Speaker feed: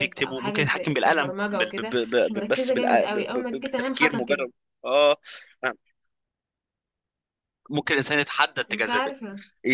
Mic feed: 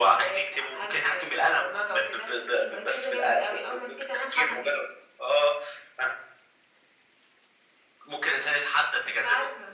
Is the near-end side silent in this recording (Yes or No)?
Yes